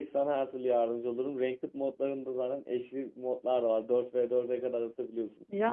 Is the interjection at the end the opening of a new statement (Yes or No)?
No